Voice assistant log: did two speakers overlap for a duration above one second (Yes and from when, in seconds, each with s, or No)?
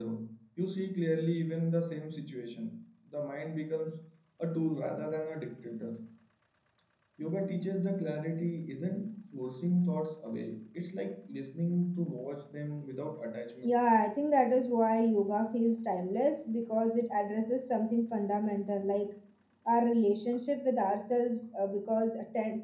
No